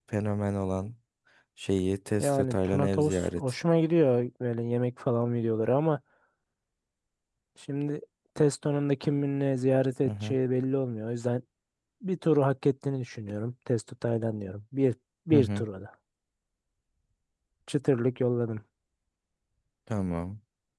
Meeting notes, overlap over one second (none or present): present